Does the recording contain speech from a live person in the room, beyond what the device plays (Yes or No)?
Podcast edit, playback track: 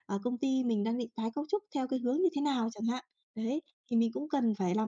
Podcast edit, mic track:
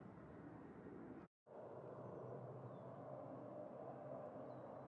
No